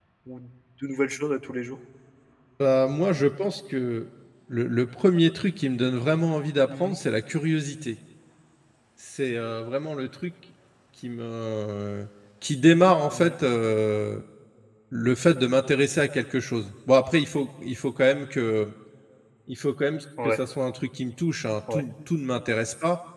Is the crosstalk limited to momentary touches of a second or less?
Yes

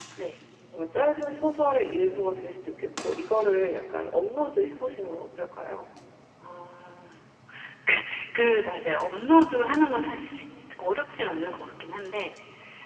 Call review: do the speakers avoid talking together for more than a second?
Yes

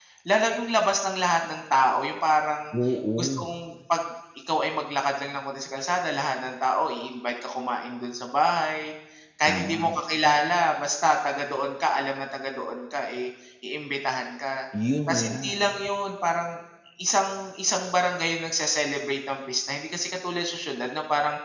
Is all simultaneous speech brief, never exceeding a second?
Yes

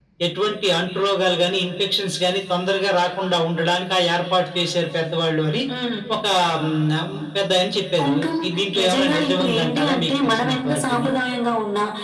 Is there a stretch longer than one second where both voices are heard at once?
Yes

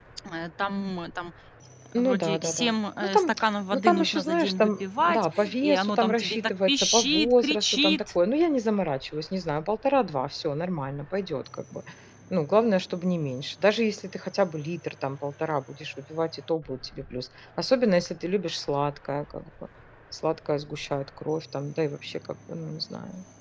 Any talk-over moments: Yes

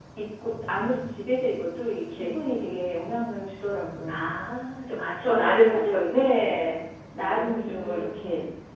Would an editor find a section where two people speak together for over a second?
Yes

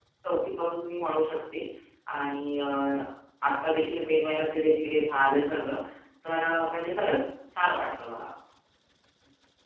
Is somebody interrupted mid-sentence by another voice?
No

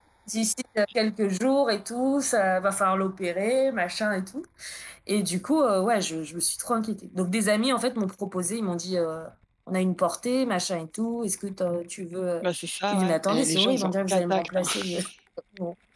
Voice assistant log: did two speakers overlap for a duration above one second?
Yes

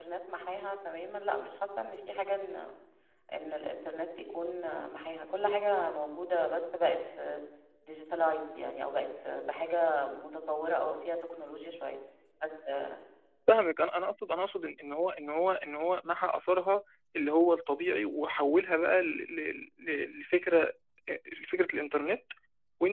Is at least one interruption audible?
No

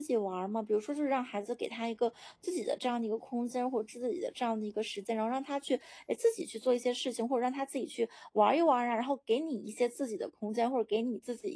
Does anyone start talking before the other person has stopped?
No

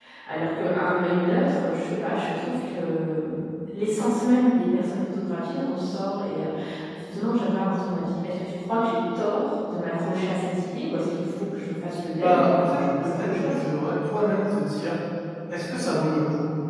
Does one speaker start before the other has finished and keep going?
Yes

